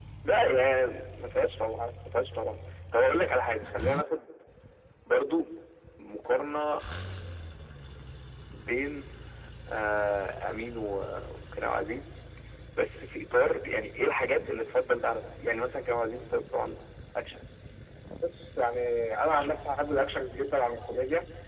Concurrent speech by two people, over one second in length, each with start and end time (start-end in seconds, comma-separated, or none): none